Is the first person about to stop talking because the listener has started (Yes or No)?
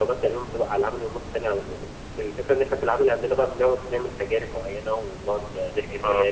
No